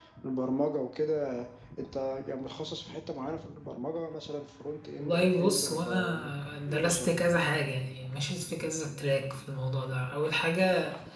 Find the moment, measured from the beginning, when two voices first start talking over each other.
5 s

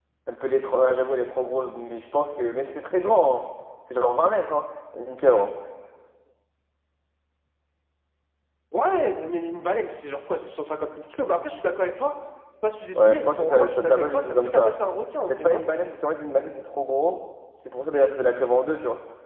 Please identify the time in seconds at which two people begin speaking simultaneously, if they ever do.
13 s

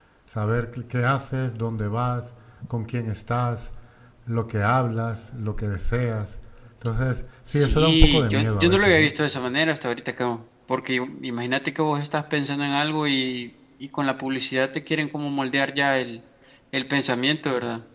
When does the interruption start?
7 s

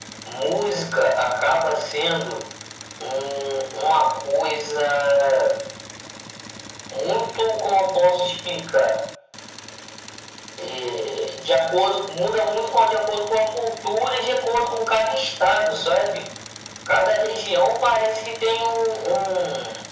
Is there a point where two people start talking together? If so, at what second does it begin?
none

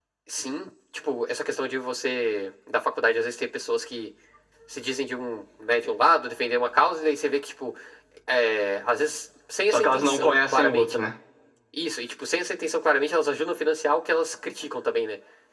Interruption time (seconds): 10 s

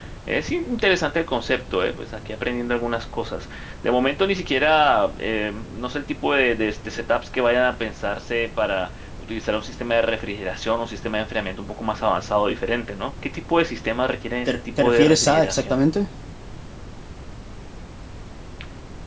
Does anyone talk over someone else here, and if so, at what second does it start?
14 s

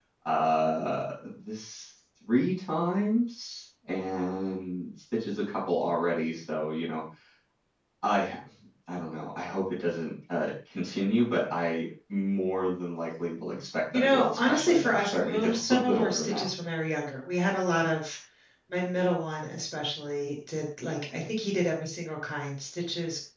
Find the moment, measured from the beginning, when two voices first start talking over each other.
14 s

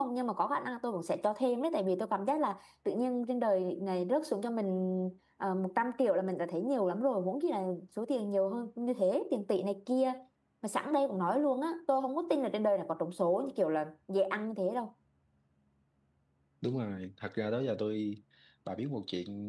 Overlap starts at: none

